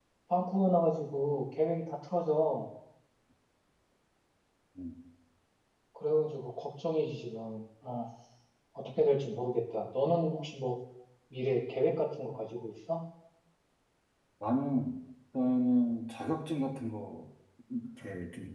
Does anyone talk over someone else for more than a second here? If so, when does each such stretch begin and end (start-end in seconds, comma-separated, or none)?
none